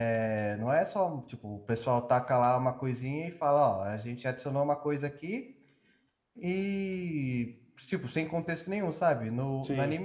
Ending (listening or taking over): listening